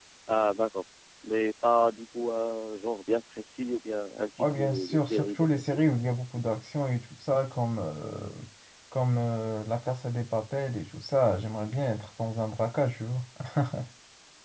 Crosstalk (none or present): present